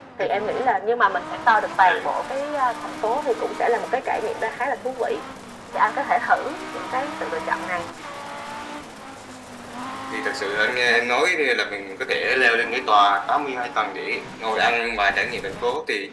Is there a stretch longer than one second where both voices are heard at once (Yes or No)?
No